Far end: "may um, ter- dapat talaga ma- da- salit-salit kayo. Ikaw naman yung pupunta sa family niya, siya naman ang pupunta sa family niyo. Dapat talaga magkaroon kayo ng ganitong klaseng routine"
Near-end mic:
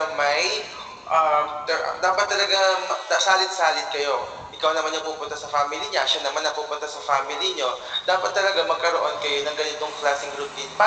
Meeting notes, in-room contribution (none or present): none